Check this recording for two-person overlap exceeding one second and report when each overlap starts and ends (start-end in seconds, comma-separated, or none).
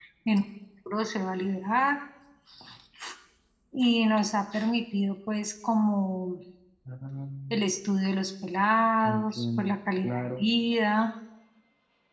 9.0-10.5